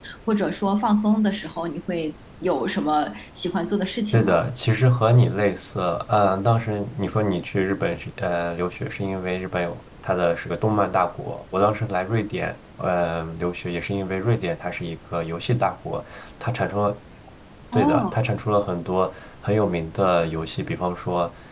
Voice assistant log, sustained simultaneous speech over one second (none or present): none